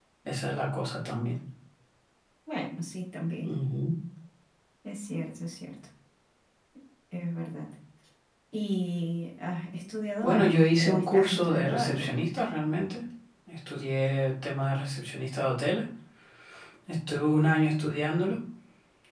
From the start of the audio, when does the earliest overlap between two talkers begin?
10.2 s

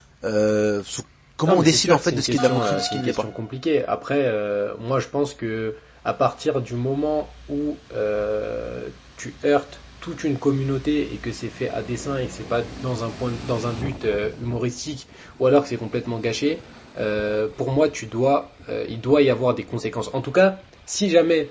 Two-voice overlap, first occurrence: 1.4 s

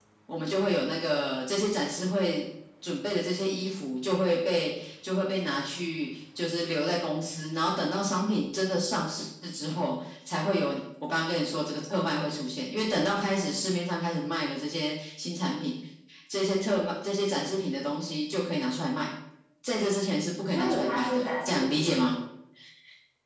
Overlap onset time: 20.5 s

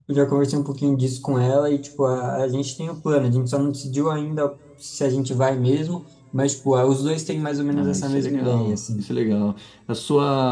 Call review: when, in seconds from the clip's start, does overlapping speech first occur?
7.7 s

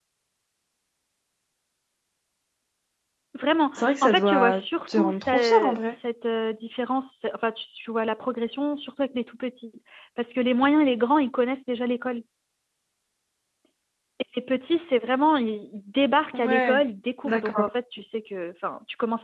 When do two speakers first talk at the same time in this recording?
3.7 s

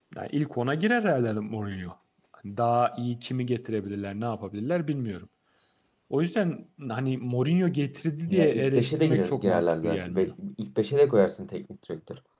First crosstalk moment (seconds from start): 8.3 s

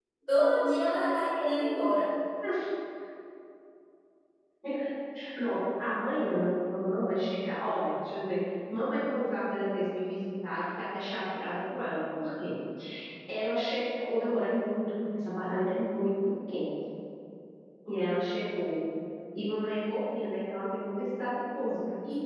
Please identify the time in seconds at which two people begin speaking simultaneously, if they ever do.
none

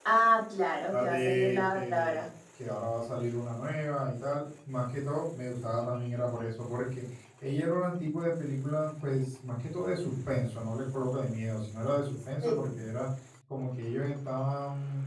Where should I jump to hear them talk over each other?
0.9 s

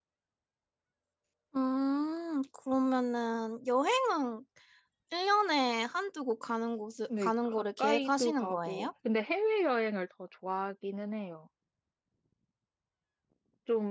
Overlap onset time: 7.1 s

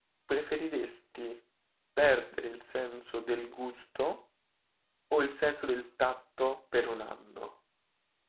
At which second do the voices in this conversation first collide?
none

